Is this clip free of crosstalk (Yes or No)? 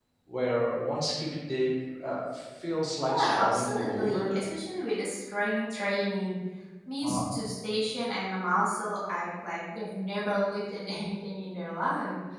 No